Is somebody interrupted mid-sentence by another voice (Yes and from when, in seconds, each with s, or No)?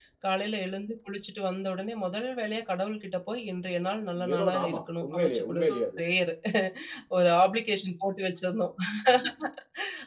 Yes, from 4.2 s